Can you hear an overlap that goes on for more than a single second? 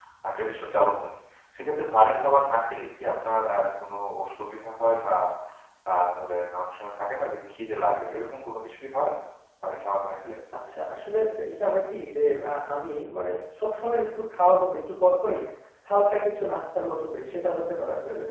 No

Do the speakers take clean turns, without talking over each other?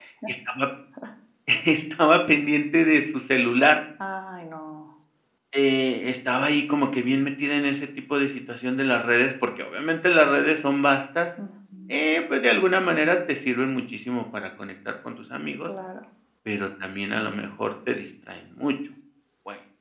Yes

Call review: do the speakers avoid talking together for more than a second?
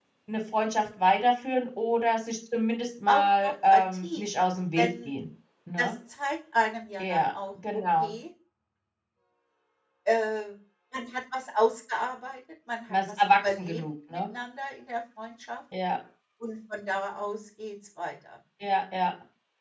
No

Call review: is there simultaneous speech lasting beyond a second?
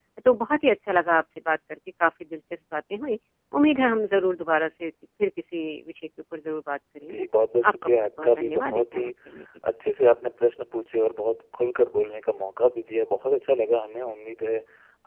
Yes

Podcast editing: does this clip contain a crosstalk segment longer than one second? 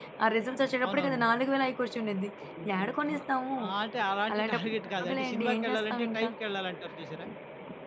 Yes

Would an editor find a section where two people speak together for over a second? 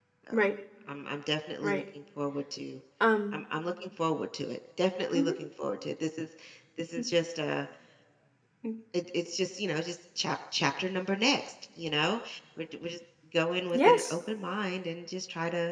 No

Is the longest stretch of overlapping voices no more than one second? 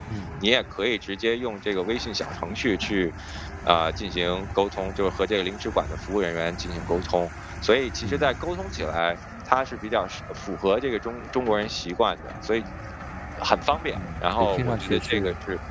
No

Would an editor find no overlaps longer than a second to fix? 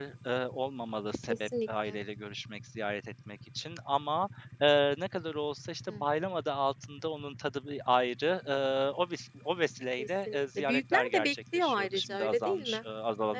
No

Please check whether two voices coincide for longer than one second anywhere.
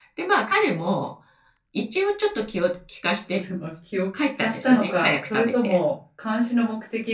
Yes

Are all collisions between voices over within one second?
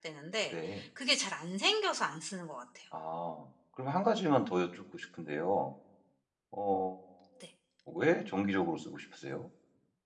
Yes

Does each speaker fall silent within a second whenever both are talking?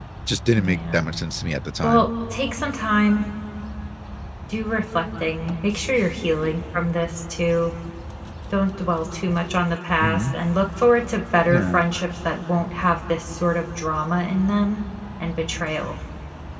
Yes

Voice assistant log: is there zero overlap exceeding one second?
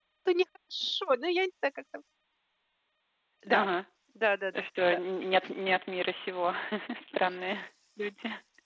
Yes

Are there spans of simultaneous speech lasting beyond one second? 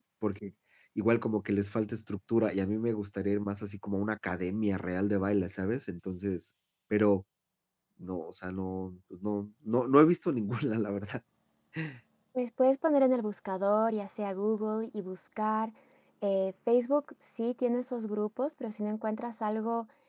No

